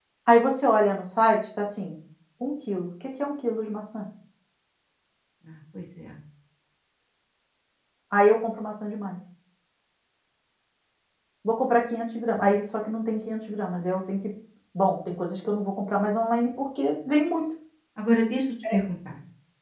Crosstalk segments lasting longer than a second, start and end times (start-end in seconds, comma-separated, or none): none